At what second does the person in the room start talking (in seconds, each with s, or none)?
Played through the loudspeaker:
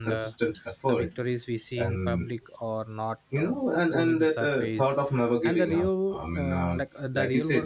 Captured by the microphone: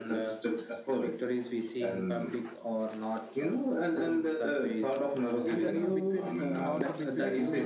5.2 s